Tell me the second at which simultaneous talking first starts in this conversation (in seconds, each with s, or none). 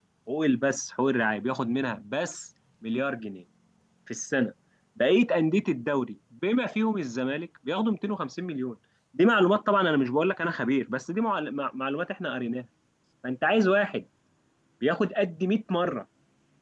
none